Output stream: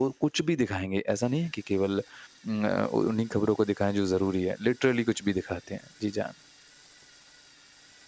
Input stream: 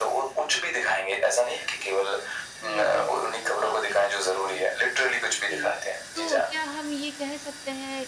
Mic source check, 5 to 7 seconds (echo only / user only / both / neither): both